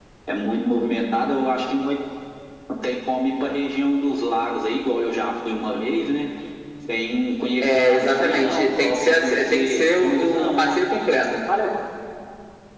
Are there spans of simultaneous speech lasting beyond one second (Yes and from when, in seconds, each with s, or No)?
Yes, from 7.6 s